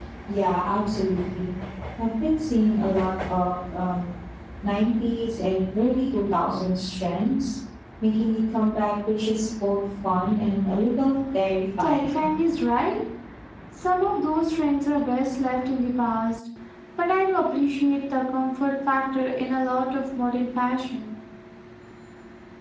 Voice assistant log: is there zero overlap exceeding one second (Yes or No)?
Yes